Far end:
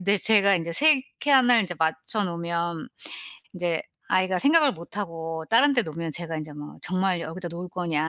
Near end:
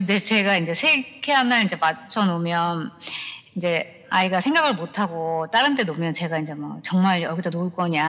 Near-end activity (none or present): none